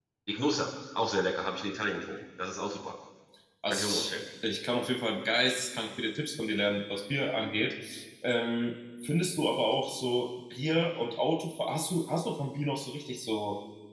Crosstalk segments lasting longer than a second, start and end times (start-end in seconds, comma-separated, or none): none